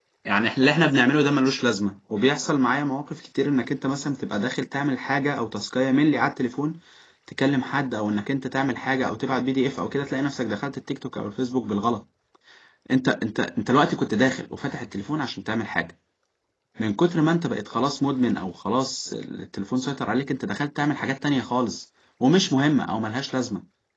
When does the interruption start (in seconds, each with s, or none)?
none